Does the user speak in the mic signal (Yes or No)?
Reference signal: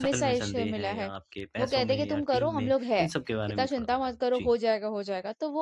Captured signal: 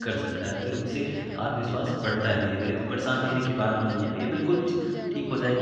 Yes